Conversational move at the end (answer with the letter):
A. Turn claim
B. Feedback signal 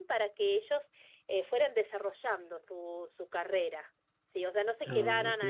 B